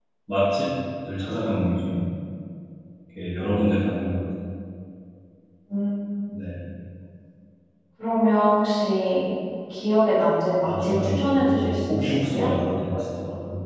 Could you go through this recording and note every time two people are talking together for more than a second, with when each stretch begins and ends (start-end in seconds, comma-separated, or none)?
10.6-12.5